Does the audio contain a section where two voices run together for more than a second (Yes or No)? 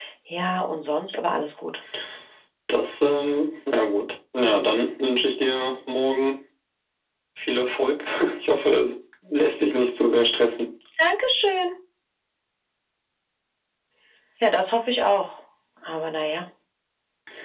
No